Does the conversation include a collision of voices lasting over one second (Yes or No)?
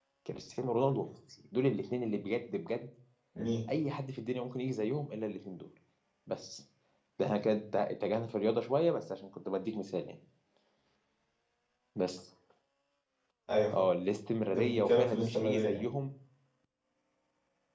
Yes